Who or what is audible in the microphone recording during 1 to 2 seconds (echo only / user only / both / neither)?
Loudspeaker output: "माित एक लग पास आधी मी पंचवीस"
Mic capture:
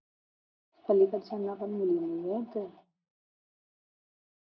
user only